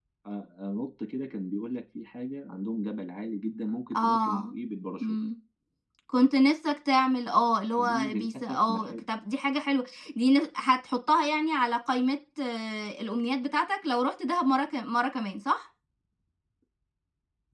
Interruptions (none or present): present